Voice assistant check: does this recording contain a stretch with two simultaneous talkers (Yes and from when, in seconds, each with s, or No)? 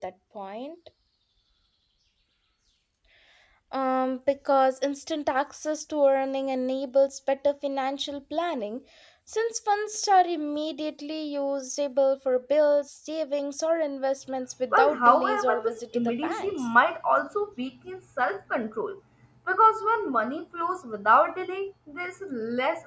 Yes, from 14.7 s